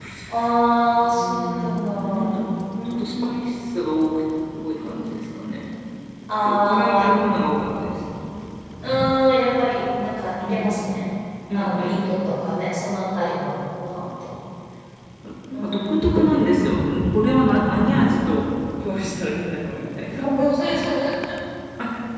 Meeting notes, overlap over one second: present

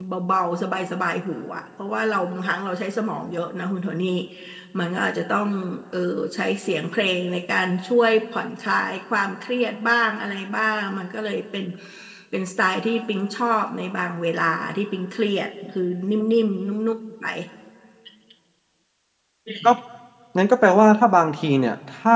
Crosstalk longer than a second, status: none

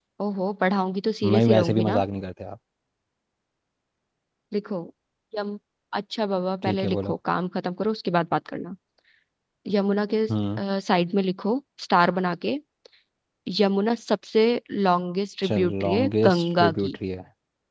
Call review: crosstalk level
present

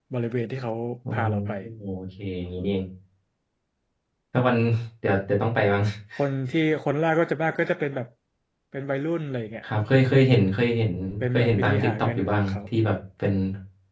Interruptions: present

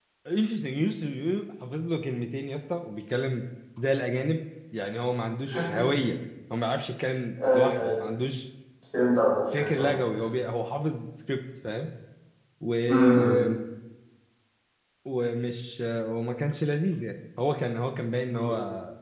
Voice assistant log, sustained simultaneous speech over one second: none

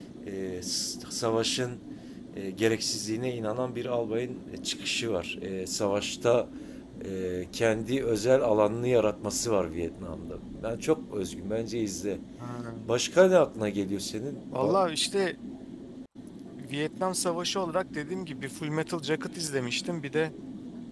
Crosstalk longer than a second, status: none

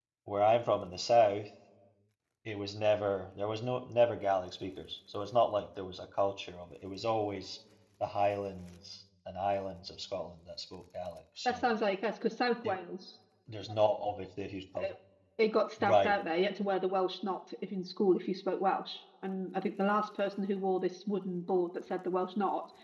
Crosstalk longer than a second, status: none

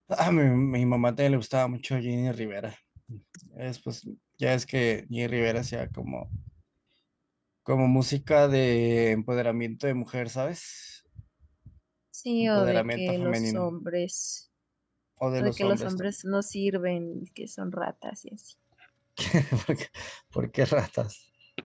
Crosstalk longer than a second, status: present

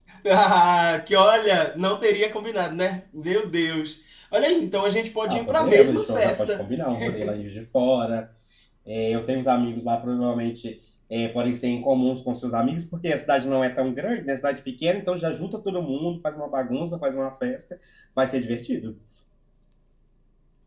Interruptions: present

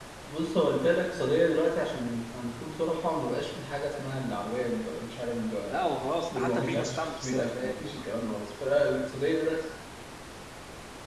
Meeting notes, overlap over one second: present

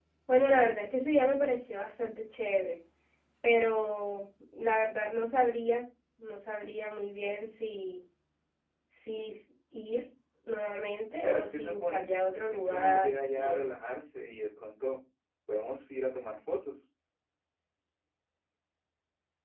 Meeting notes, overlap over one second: present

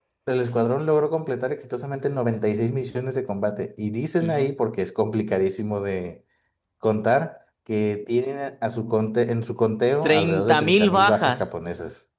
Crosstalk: present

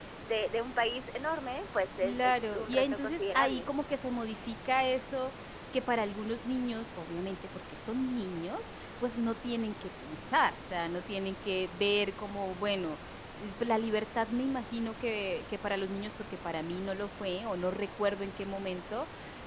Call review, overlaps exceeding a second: present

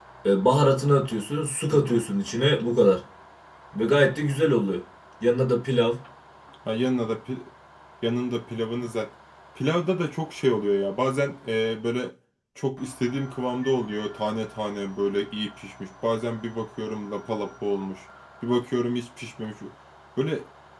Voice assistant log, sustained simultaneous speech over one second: none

